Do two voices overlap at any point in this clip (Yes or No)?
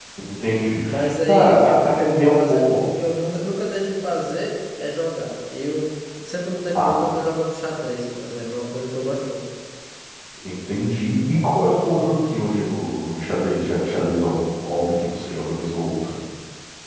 Yes